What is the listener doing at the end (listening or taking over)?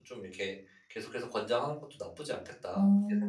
taking over